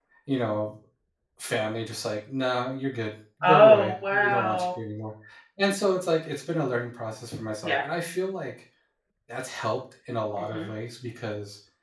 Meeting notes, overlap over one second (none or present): present